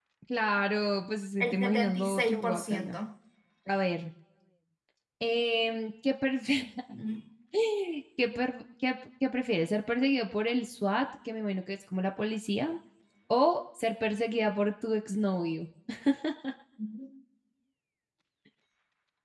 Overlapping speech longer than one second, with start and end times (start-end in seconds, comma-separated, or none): 1.4-3.0